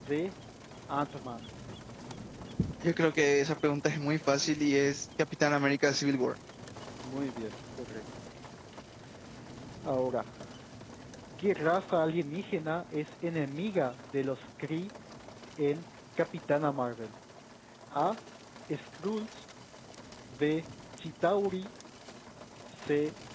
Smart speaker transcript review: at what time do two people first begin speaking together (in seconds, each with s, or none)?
none